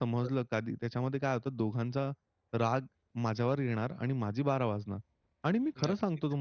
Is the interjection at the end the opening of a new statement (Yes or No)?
No